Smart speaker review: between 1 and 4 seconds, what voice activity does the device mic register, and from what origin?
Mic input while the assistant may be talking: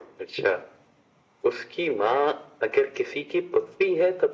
echo only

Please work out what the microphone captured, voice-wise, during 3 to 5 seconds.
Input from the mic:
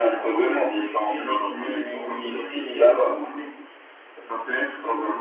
echo only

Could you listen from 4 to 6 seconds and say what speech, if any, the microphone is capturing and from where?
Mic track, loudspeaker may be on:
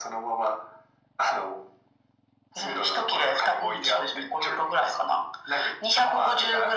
echo only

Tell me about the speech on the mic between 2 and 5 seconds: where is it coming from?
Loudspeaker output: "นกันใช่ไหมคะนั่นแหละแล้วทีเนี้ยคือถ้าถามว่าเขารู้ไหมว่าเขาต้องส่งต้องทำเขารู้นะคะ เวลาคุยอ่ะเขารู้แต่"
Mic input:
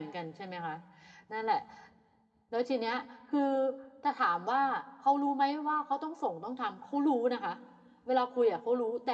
echo only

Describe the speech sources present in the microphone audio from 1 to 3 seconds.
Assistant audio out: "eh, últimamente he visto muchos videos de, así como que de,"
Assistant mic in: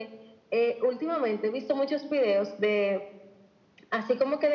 echo only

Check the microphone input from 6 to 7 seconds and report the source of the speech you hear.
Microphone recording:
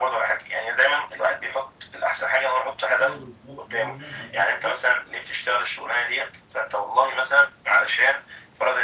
echo only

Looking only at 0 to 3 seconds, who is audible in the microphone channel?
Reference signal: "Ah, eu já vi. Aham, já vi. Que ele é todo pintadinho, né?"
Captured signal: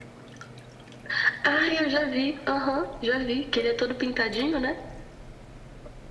echo only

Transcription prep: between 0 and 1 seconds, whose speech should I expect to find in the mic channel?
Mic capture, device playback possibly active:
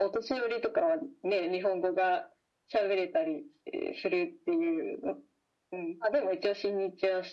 echo only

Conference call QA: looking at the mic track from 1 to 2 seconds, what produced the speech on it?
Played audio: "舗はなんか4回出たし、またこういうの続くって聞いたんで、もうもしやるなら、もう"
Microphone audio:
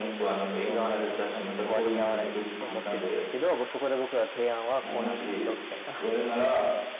both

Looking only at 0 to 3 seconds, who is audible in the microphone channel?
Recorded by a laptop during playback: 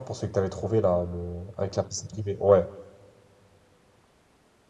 echo only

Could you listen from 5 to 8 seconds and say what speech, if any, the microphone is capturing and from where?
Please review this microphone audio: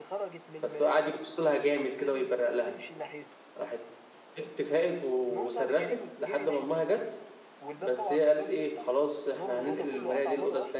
both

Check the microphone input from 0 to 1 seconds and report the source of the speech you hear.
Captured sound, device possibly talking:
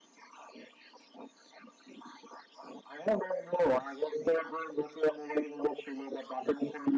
neither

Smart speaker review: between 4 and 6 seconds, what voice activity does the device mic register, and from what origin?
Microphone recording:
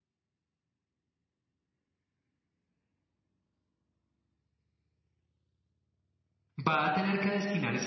neither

